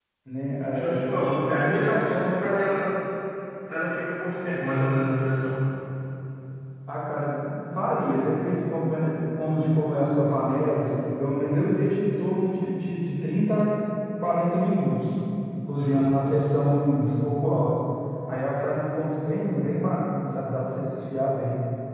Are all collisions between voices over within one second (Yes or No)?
No